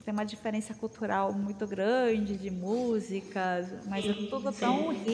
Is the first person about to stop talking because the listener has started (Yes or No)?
No